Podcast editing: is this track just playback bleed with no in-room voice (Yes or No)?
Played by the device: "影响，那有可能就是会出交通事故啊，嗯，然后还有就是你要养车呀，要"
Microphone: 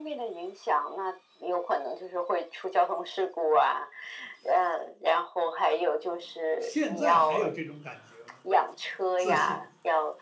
No